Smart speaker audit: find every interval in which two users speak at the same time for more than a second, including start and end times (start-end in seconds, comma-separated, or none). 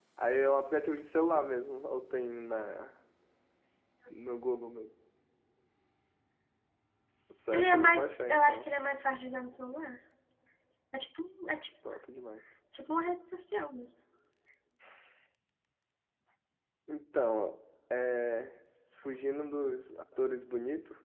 7.5-8.7